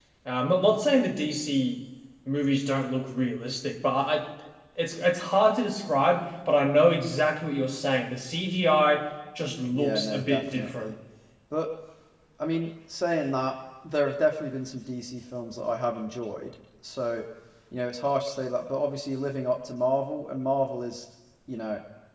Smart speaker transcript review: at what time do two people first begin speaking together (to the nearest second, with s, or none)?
10 s